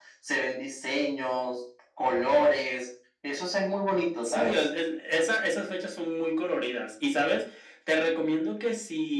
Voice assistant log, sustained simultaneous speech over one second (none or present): none